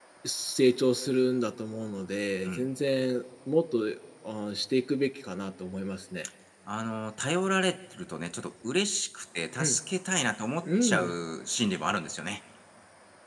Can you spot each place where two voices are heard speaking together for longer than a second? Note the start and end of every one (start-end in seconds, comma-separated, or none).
none